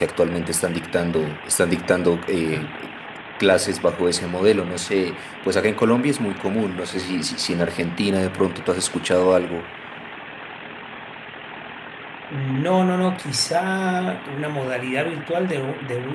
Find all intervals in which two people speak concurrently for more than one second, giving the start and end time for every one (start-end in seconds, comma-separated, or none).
none